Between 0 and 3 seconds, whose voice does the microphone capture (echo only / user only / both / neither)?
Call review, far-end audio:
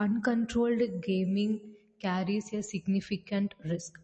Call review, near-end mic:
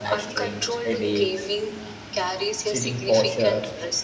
both